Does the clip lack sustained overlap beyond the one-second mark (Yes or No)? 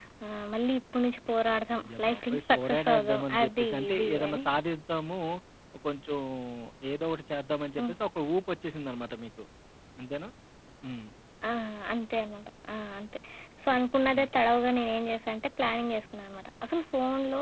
No